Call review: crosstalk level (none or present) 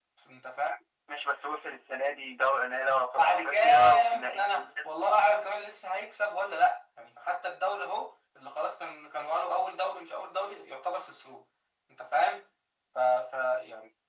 present